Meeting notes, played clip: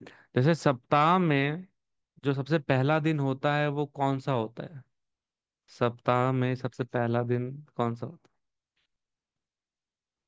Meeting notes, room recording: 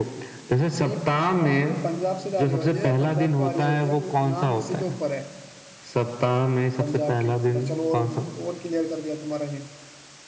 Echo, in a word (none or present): present